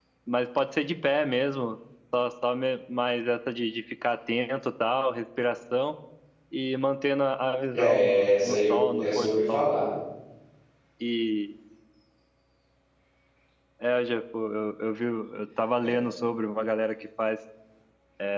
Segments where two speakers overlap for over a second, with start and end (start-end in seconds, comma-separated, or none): 7.7-9.6